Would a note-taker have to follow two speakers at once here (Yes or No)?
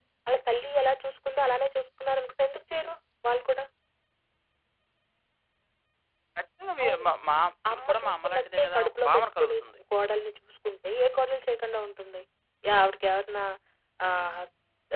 Yes